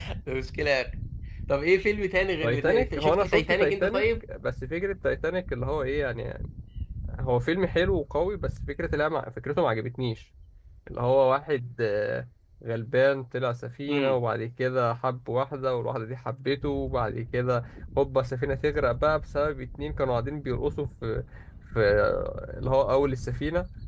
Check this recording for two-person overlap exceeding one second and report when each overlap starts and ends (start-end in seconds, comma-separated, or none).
2.4-4.0